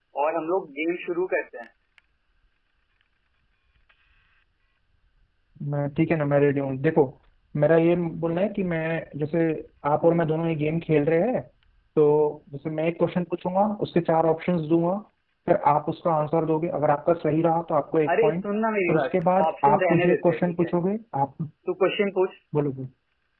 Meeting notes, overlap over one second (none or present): present